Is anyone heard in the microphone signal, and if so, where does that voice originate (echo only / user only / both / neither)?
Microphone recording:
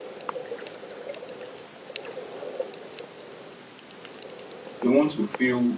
user only